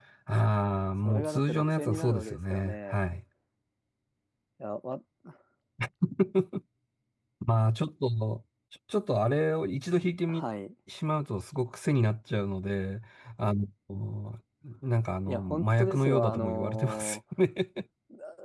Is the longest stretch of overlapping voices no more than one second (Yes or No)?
No